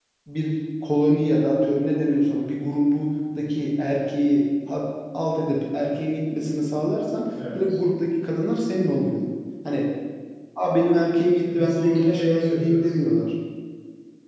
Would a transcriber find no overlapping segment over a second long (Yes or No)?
No